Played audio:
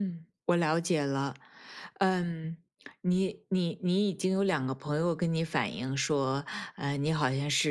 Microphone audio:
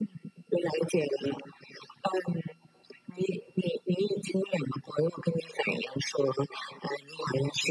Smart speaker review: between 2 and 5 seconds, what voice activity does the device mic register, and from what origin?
echo only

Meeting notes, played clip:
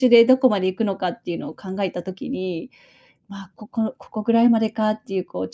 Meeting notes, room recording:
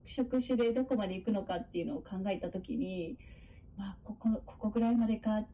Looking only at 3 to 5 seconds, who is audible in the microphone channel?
echo only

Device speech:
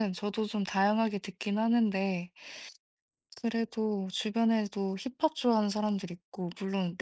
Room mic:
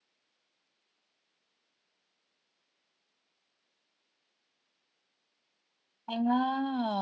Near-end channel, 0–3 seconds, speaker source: neither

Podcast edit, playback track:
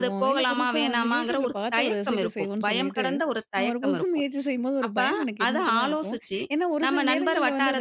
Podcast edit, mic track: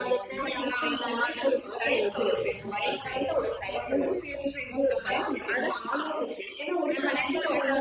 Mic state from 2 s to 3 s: echo only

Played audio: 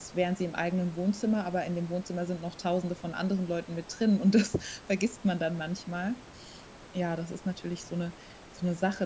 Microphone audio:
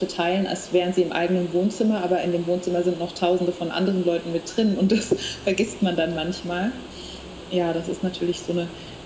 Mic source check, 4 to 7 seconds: echo only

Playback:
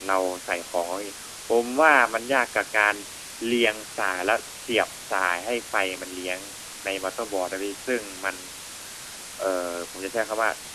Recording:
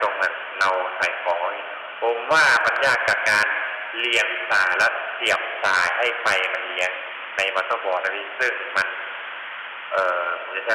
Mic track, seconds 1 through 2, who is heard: echo only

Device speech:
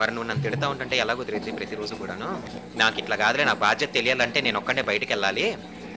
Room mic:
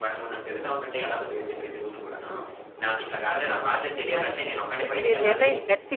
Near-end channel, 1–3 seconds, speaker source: echo only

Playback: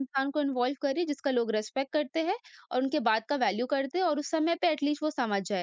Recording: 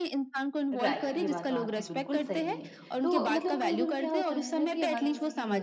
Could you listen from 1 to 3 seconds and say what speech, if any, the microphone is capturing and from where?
both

